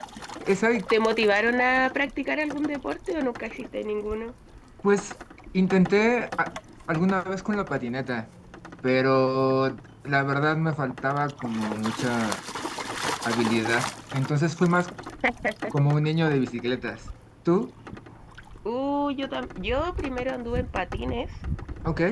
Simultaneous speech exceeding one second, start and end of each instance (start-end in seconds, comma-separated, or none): none